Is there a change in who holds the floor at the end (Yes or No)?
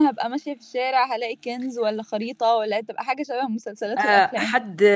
Yes